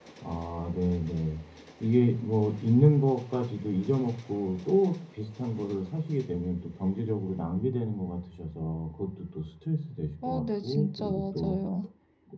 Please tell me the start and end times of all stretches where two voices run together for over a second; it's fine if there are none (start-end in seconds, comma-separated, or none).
10.2-11.6